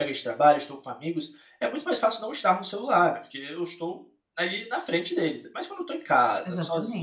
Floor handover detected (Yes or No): No